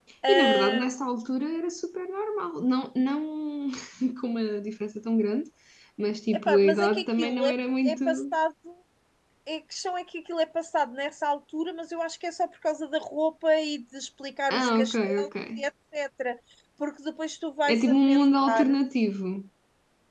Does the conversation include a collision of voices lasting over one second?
Yes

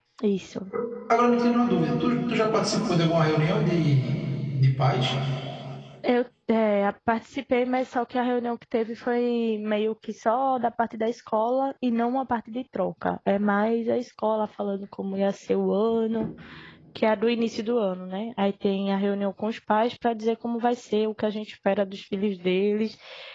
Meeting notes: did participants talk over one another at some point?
No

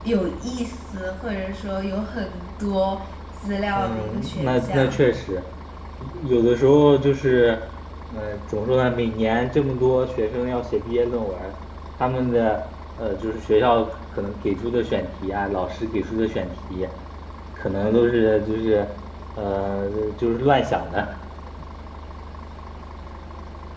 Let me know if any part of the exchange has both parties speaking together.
Yes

